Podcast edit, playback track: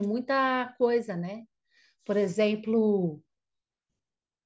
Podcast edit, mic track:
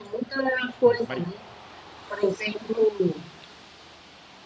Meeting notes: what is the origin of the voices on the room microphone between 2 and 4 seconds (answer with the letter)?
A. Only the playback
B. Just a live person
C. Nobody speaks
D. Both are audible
A